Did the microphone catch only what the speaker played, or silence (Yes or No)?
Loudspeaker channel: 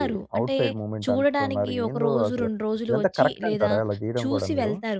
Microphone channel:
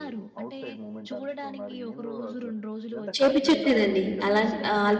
No